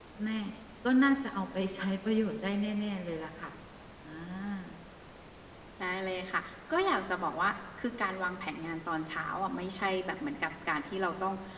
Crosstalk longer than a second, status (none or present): none